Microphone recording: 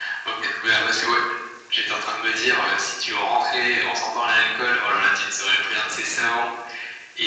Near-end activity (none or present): none